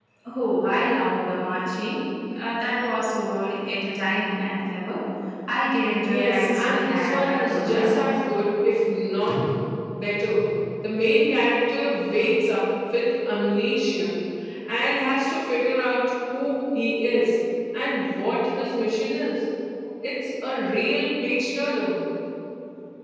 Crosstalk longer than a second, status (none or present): present